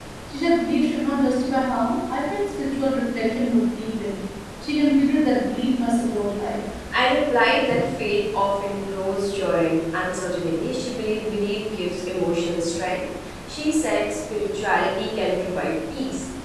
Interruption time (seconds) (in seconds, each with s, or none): none